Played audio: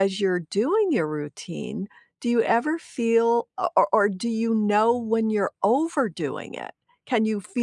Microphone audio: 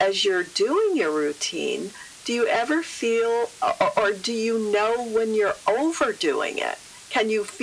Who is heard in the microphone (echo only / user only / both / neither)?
echo only